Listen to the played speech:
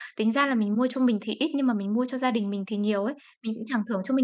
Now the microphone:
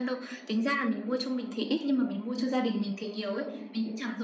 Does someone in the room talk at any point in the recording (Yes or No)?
No